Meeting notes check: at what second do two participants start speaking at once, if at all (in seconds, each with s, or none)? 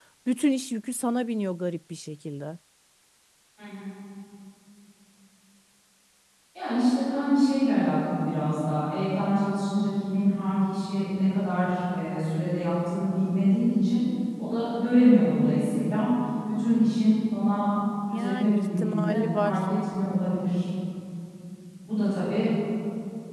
18.1 s